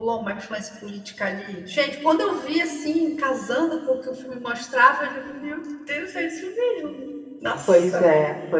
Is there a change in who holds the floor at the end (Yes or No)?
Yes